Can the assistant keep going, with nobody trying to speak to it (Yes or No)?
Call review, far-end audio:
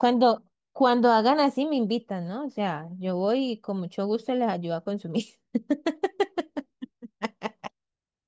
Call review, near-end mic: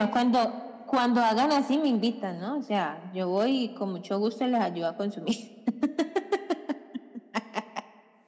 Yes